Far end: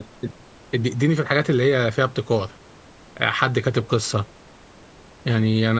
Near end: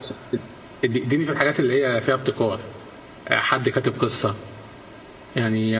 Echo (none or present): present